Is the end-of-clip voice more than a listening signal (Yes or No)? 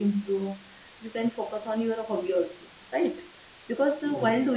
No